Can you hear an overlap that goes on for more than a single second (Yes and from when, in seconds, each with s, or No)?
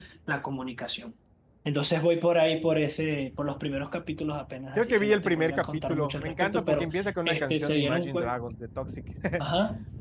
Yes, from 4.8 s